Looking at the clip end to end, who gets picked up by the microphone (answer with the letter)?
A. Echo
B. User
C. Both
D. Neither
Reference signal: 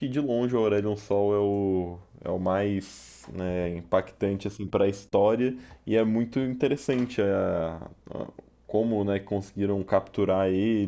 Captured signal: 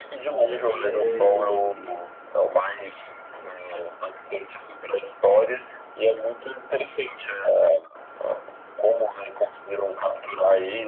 C